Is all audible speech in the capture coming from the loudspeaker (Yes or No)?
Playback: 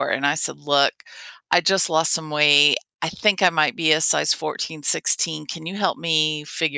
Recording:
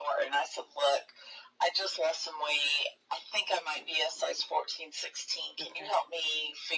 No